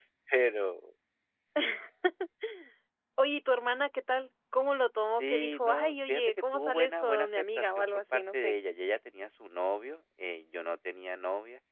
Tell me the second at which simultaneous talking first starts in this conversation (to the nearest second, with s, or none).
5 s